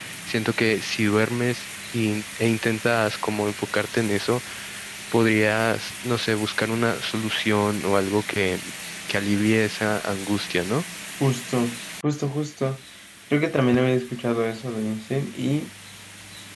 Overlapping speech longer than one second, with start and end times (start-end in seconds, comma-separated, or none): none